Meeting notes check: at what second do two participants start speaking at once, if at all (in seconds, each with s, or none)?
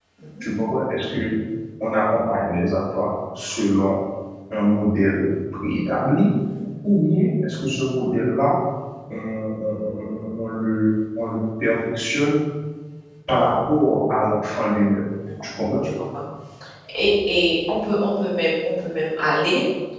none